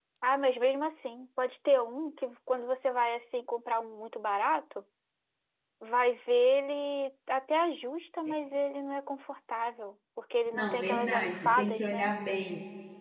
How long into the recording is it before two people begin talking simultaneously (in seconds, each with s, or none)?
10.5 s